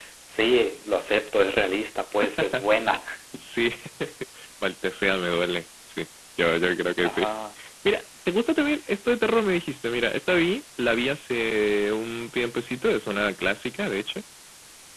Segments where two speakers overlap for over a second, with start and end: none

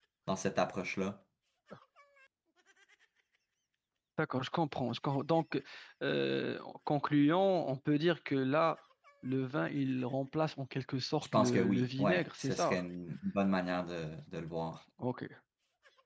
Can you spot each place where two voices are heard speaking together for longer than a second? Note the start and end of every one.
11.3-12.8

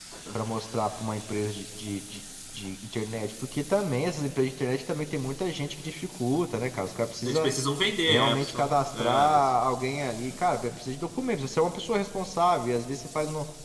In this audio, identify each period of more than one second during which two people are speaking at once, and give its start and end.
8.1-9.4

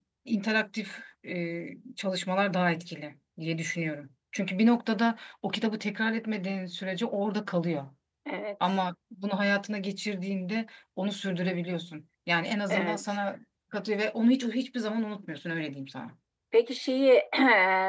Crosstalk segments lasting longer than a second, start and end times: none

